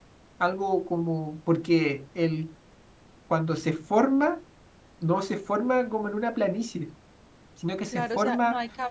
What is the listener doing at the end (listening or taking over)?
taking over